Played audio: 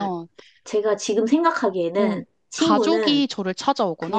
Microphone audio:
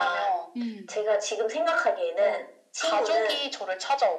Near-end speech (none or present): present